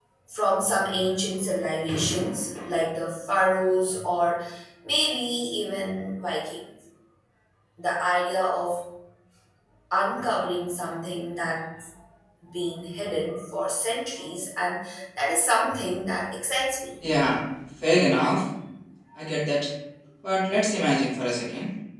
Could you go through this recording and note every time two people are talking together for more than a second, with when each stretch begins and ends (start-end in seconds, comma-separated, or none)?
none